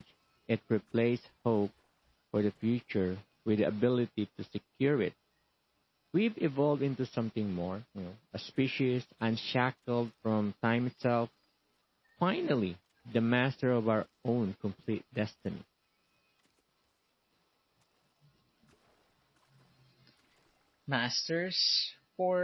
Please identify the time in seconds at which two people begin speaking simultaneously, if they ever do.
none

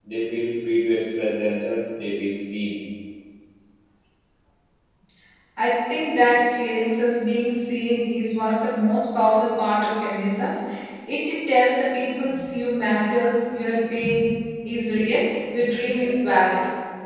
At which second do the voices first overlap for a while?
none

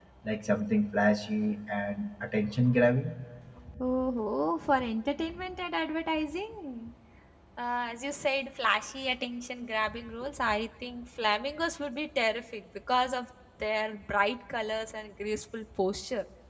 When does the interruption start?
none

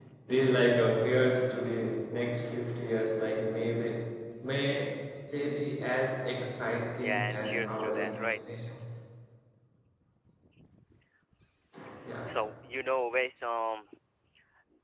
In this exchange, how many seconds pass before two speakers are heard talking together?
7.0 s

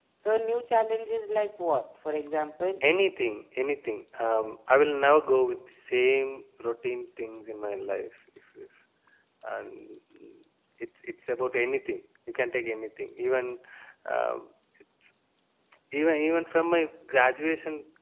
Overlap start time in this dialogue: none

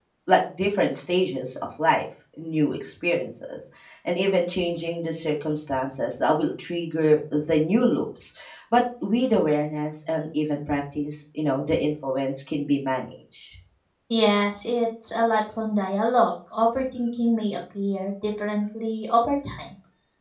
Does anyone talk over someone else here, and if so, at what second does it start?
none

